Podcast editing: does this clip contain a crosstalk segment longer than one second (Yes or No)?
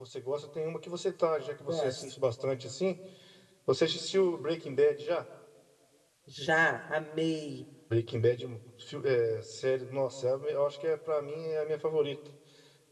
No